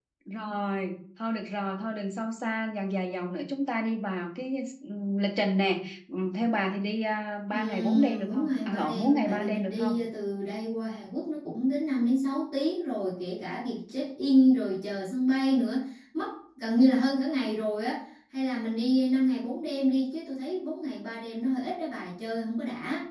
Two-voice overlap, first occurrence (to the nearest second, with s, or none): 8 s